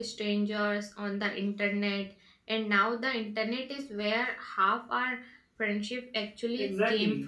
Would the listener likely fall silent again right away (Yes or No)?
No